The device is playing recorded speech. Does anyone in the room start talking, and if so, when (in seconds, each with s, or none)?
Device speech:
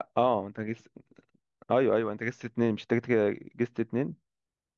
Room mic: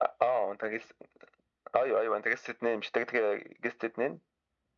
none